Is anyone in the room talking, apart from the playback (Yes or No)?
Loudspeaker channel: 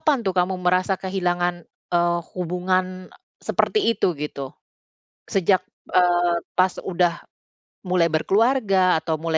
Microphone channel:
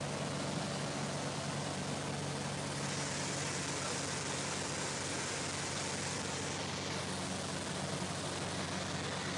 No